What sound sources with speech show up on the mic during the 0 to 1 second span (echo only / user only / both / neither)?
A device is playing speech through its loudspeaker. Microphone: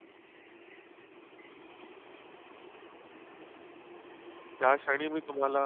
neither